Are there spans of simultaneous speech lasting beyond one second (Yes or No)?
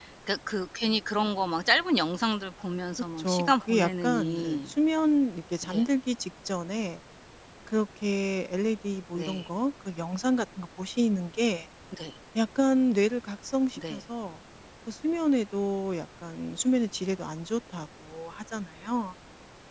Yes